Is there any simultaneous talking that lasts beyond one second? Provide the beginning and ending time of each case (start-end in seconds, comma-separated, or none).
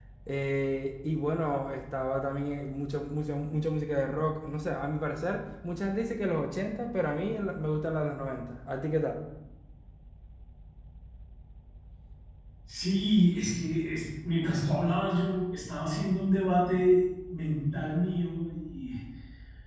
none